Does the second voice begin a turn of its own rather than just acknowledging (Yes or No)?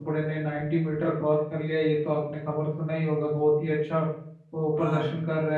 No